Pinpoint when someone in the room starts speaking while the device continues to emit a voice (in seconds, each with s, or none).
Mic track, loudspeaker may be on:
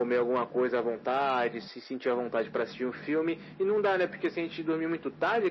none